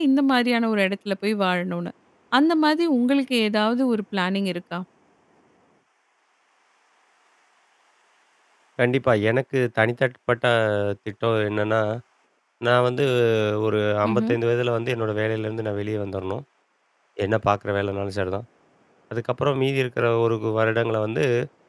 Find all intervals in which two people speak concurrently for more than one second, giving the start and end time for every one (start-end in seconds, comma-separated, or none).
none